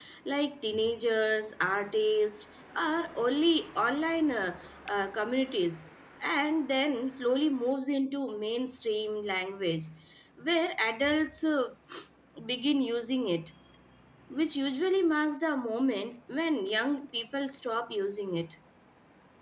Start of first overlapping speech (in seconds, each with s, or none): none